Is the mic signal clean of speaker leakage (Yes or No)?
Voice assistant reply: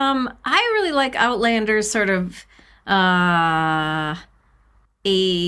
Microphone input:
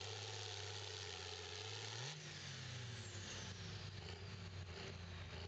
Yes